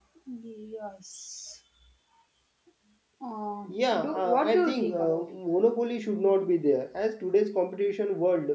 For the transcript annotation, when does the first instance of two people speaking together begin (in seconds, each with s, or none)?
4.0 s